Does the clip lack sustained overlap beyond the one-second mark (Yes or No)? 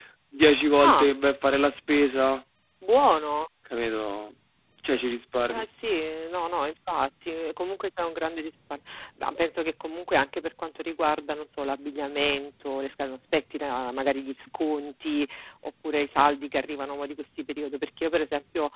Yes